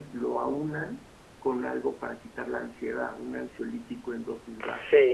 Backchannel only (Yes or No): No